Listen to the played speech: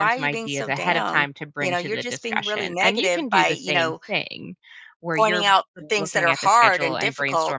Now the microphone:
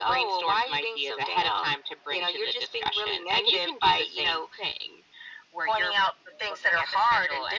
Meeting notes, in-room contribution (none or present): none